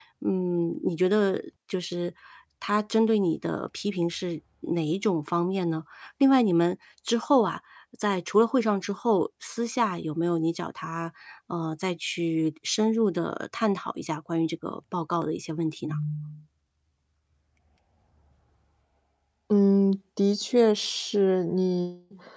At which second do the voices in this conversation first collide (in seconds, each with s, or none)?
none